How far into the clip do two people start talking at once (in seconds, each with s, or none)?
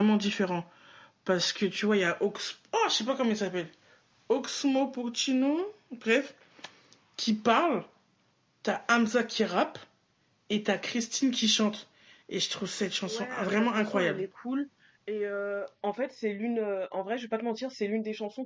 13.0 s